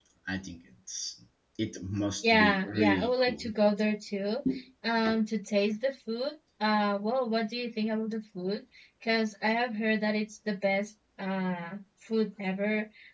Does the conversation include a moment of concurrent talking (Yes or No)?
Yes